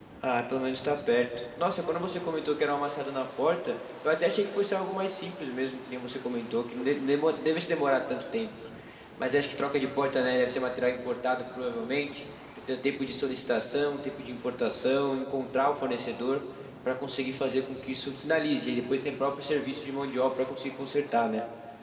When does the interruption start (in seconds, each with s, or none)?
none